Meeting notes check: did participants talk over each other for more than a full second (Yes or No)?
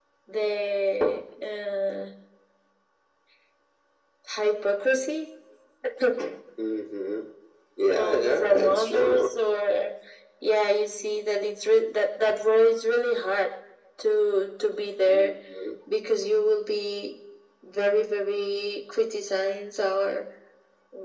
Yes